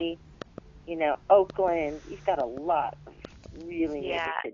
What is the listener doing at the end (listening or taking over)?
taking over